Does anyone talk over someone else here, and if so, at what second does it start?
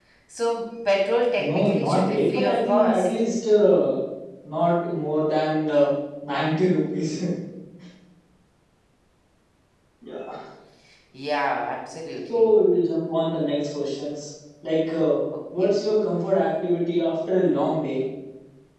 1.4 s

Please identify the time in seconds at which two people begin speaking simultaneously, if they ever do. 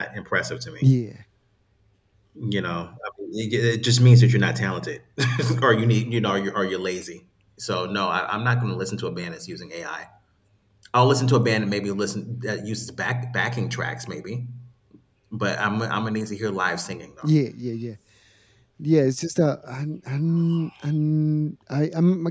none

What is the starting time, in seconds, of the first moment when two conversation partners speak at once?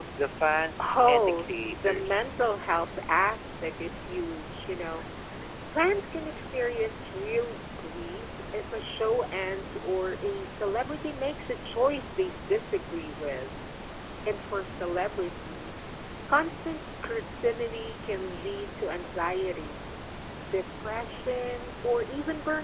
0.8 s

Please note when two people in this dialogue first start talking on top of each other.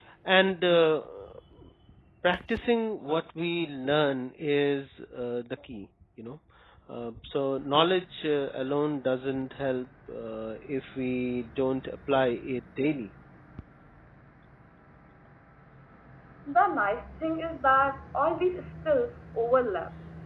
none

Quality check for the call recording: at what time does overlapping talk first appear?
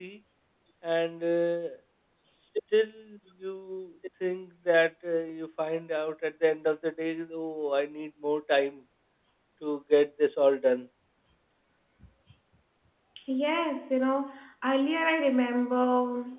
none

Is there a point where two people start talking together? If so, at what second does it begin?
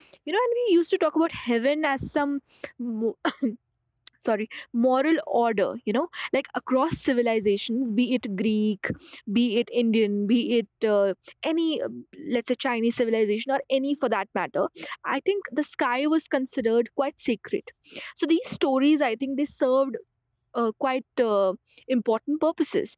none

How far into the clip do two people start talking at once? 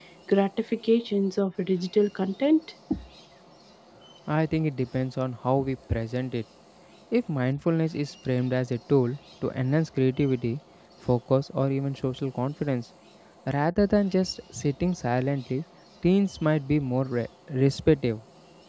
none

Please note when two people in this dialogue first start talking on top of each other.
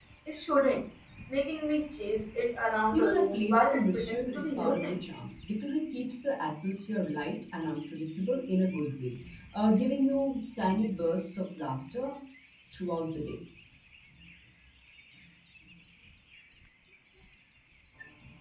2.9 s

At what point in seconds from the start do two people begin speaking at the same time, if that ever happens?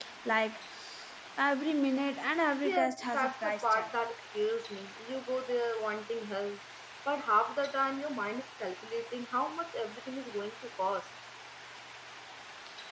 2.6 s

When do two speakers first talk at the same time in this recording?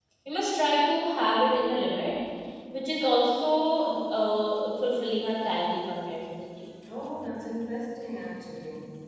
none

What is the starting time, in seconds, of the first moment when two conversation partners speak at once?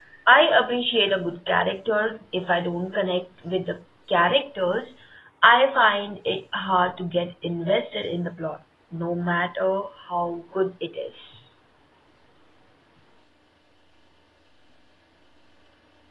none

